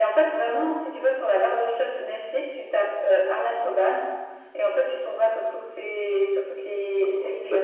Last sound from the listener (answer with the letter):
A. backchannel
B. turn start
B